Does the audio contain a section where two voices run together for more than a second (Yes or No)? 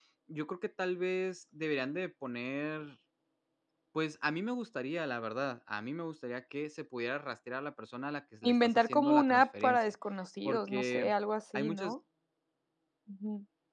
Yes